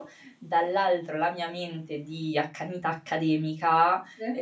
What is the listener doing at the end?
listening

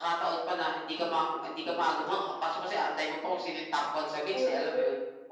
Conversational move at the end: taking over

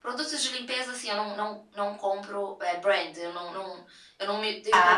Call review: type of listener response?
listening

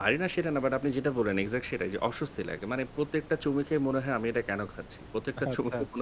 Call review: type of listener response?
listening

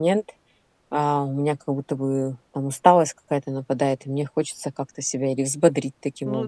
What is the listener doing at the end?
taking over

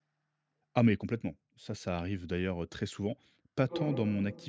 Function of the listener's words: listening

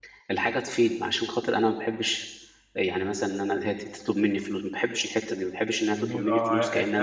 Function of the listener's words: taking over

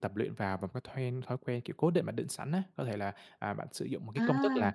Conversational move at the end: listening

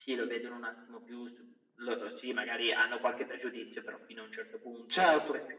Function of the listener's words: listening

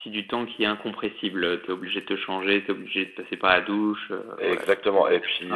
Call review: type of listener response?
taking over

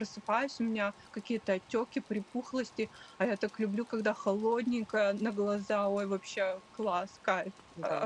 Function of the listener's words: taking over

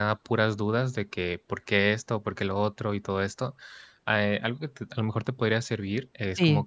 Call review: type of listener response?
listening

